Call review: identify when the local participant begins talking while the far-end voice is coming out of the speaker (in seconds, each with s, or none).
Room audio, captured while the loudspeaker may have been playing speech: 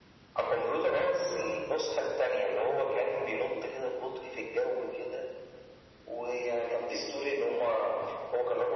none